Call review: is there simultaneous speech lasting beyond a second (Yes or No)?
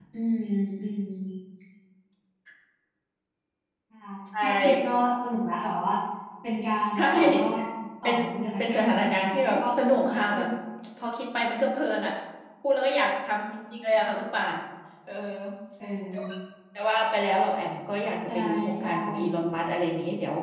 Yes